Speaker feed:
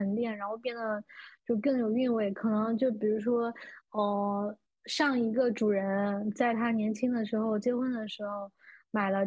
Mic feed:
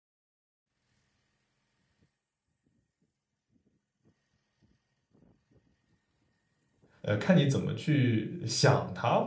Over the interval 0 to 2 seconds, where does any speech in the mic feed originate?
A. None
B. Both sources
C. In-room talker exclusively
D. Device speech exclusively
A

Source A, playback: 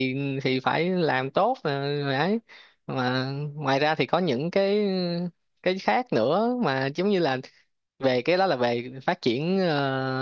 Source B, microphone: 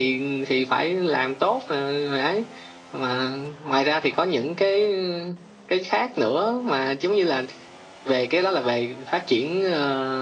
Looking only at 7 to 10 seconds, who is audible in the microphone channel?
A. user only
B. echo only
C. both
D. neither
B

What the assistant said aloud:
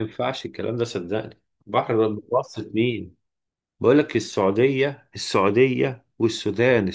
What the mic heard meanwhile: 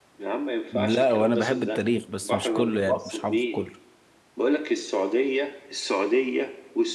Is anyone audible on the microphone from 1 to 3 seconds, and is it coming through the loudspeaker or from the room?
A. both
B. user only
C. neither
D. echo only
A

